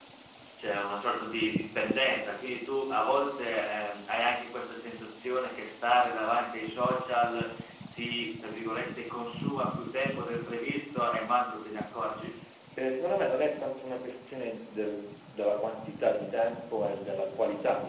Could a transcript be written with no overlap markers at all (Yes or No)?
Yes